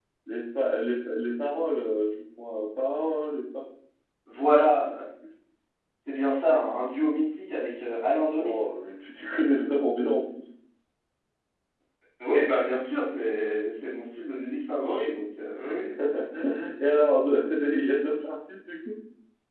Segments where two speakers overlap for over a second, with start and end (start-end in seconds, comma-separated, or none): none